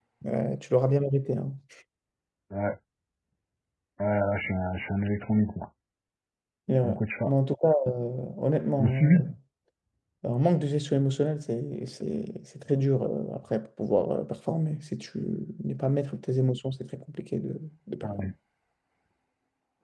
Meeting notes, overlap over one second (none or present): none